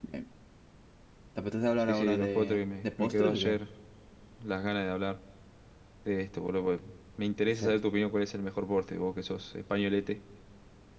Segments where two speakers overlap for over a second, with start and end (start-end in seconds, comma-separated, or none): 1.8-3.6